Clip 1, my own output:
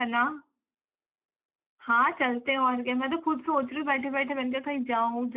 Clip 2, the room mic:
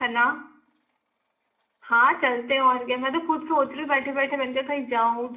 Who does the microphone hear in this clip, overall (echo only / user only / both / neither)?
echo only